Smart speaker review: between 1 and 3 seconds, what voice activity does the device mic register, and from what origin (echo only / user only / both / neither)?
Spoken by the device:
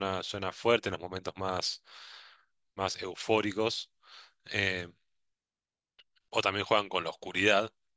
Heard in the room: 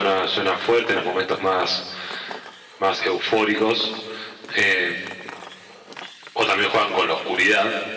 echo only